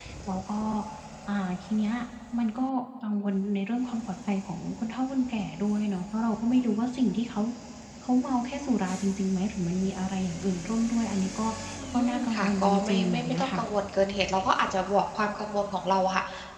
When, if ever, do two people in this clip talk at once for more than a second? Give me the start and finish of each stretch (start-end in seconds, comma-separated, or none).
11.9-13.6